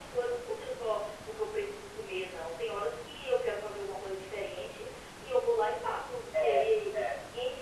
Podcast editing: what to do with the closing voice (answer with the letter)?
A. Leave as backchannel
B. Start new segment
A